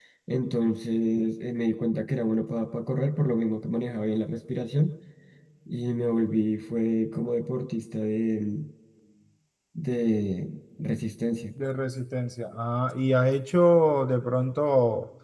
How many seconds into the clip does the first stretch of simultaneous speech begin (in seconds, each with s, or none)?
none